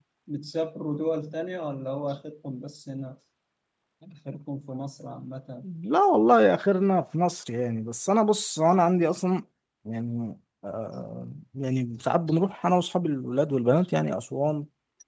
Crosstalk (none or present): none